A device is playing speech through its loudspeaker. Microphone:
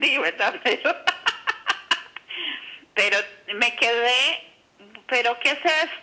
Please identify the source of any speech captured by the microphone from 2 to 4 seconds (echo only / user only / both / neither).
echo only